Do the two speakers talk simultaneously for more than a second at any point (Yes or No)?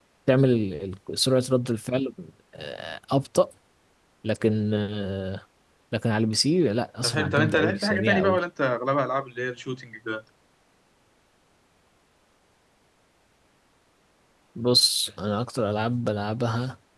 Yes